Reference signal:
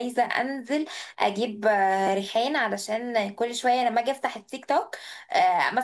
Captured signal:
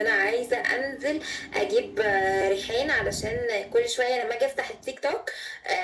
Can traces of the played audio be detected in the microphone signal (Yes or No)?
Yes